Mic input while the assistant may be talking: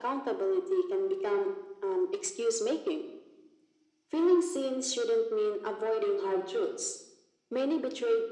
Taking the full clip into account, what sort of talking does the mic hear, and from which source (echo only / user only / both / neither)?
echo only